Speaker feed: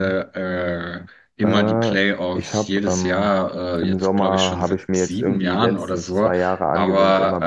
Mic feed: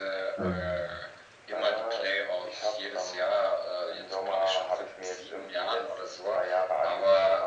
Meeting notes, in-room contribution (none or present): present